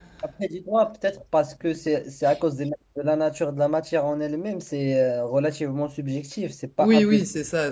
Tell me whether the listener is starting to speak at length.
Yes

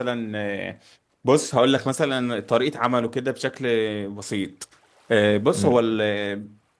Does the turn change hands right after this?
No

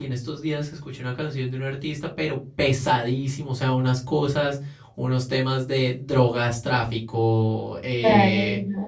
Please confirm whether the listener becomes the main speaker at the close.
No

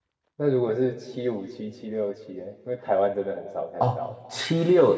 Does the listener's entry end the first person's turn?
Yes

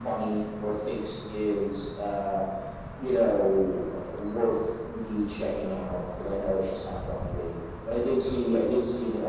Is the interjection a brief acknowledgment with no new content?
Yes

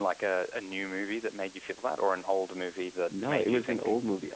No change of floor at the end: No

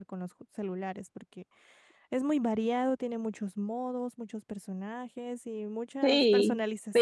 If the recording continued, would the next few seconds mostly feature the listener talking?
Yes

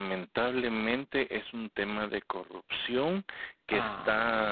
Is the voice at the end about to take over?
No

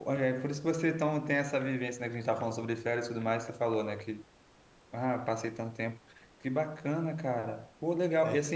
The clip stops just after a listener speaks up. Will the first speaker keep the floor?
Yes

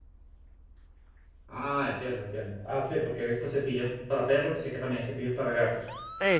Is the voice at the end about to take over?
Yes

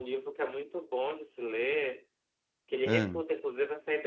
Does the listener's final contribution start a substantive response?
No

